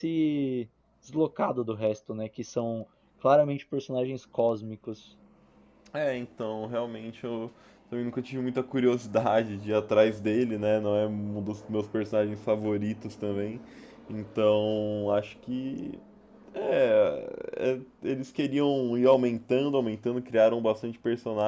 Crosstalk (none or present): none